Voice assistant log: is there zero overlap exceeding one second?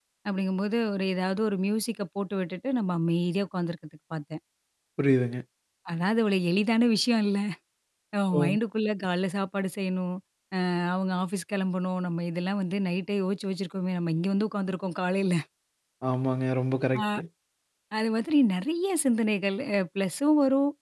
Yes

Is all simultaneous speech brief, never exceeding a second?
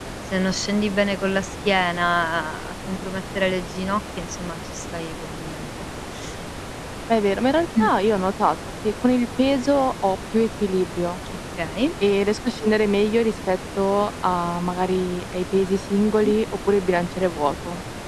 Yes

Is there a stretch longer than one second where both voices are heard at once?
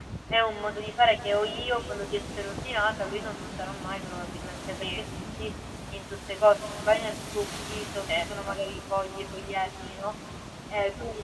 No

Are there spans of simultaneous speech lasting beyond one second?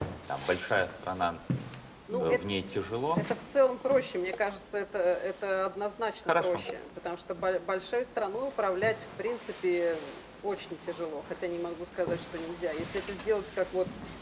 No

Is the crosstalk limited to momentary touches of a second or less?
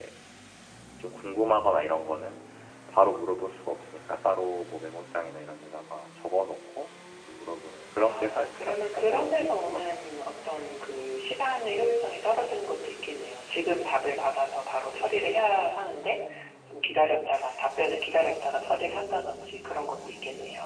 No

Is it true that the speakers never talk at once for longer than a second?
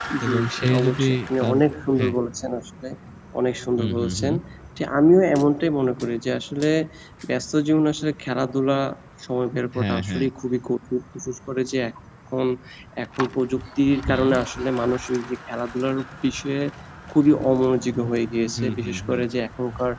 No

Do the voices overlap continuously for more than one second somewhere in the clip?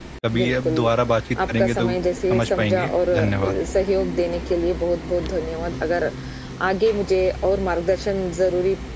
Yes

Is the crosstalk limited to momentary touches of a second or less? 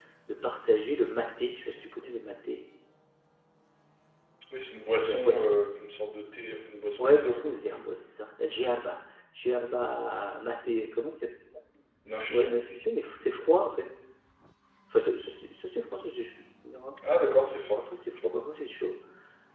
Yes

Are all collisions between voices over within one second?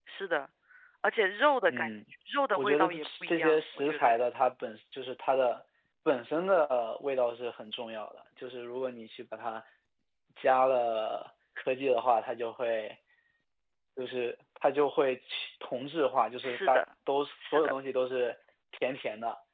No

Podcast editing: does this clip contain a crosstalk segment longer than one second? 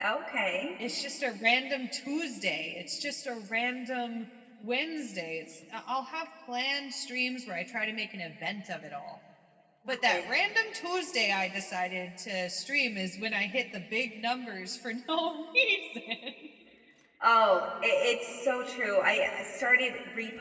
No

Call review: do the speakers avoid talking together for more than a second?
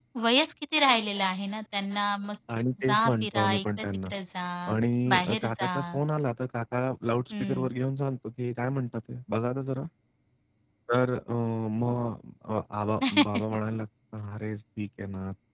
No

